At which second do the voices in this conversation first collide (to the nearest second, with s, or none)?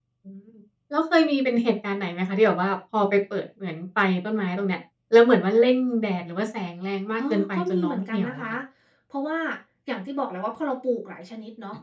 7 s